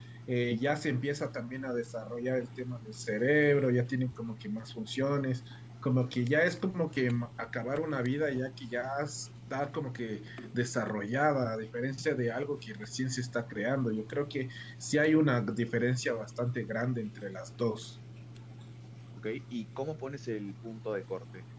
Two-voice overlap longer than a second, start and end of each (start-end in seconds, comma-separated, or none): none